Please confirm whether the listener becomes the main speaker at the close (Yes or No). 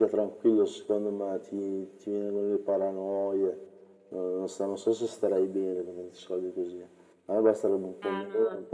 Yes